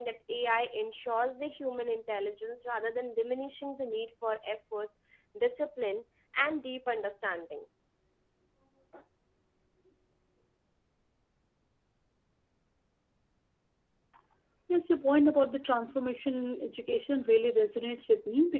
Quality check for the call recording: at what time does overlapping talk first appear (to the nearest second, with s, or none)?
none